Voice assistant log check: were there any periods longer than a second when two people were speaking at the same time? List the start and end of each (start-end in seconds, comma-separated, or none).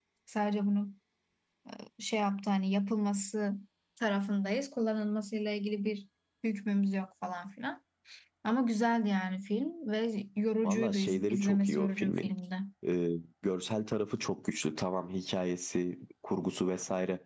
10.6-12.3